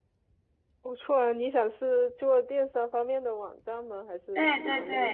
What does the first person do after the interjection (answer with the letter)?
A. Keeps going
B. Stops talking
B